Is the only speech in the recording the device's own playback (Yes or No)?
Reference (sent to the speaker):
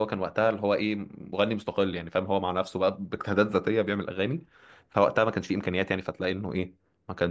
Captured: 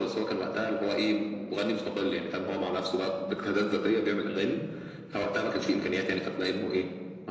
Yes